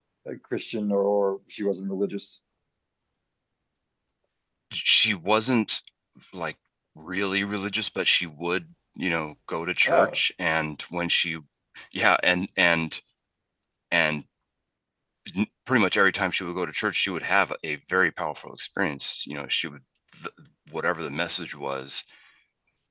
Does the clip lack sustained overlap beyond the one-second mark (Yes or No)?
Yes